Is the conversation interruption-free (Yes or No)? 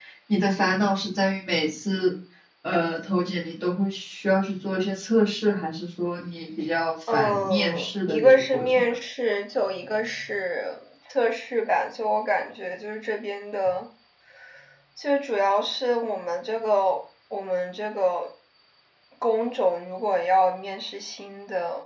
No